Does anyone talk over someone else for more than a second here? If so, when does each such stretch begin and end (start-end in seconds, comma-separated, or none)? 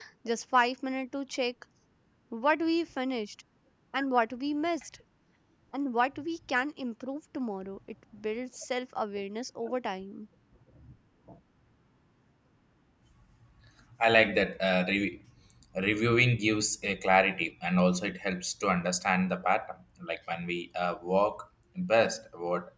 none